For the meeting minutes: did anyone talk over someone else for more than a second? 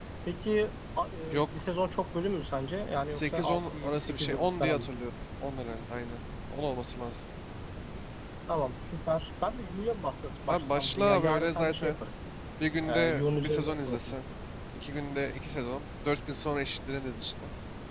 Yes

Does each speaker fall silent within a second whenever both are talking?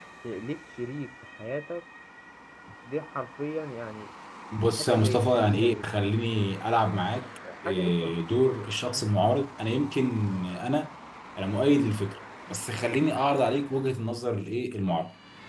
No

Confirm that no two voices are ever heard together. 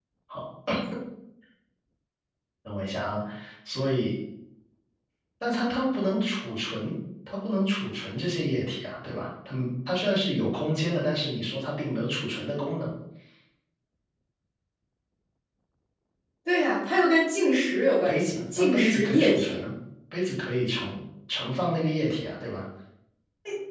No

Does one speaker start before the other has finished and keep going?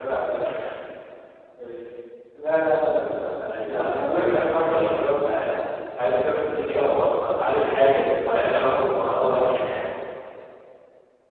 Yes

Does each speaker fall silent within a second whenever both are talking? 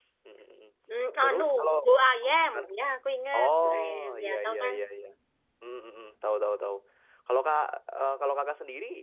No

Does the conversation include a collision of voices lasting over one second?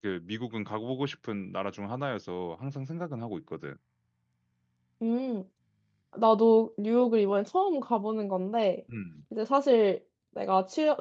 No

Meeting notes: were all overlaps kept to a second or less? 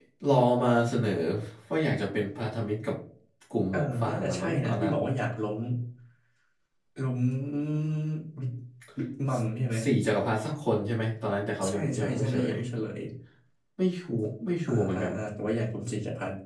No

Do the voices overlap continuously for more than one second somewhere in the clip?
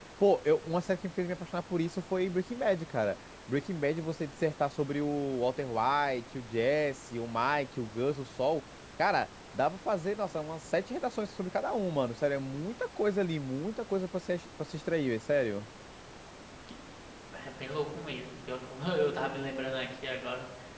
No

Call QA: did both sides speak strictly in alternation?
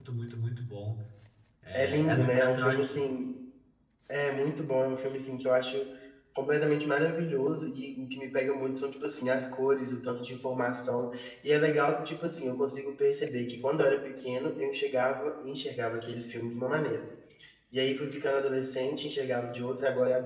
No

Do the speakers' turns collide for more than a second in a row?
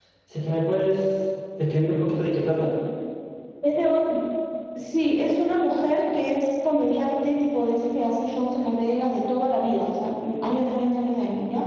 No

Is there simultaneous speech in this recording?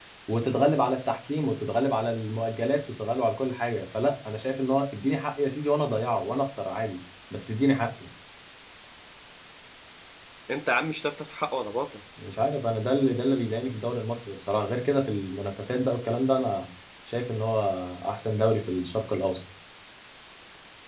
No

